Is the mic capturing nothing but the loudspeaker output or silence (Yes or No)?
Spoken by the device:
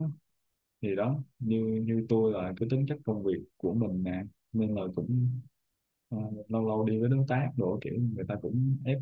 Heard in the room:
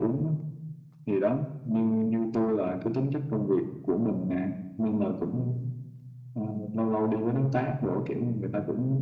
Yes